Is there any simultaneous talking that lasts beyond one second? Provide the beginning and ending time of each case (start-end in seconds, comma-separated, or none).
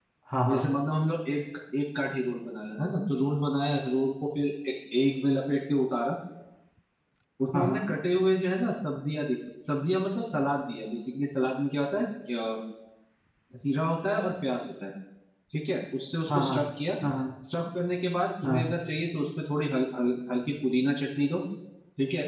none